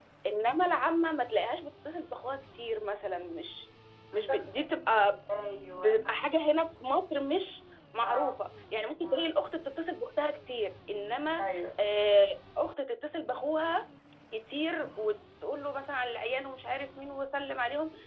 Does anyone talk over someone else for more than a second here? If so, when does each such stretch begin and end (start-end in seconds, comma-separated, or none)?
none